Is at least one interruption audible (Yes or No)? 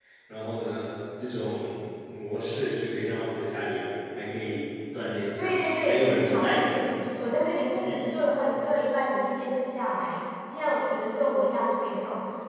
Yes